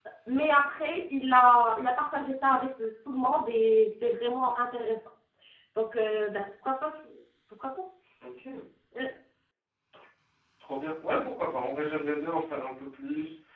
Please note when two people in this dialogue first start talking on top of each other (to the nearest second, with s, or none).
none